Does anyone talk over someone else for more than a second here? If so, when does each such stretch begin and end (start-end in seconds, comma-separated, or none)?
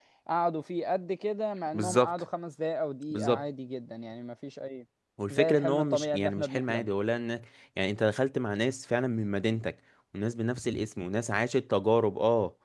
5.3-6.9